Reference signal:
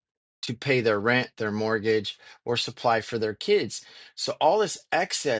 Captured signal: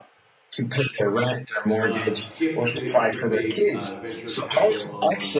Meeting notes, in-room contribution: present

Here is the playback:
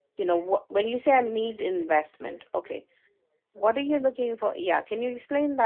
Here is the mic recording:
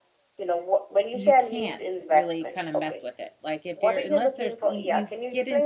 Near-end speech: present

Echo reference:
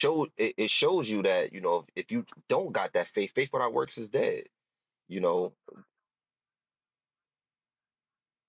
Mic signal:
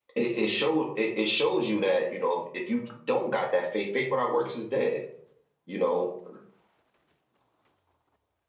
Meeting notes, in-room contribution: none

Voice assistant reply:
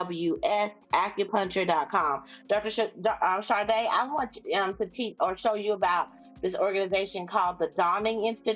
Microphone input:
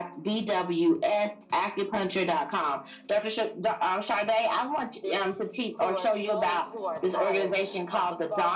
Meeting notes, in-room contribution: present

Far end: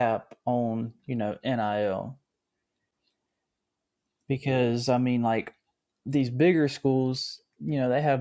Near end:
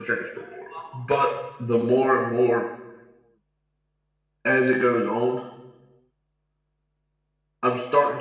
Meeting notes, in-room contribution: present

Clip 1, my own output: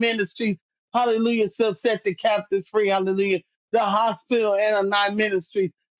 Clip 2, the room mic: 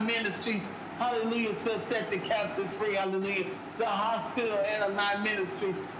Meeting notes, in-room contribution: none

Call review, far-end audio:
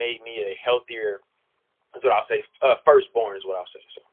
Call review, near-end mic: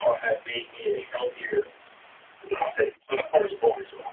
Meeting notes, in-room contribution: none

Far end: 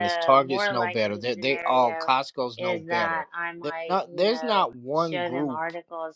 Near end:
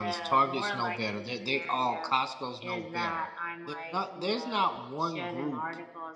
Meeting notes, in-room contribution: none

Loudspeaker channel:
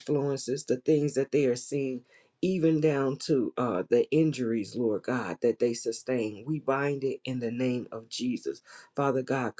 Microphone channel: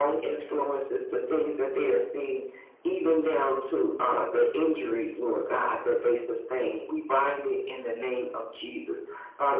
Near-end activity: none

